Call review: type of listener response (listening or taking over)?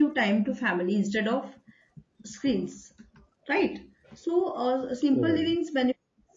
listening